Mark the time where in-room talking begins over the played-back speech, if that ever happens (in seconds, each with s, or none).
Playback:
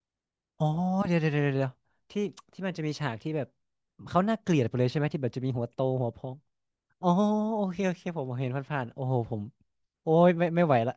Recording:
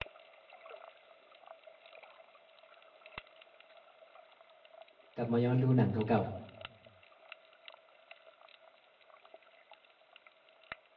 5.1 s